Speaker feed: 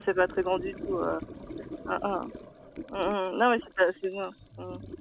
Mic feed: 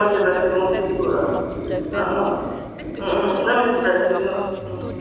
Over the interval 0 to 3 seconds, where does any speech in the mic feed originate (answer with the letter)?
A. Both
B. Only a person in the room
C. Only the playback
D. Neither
A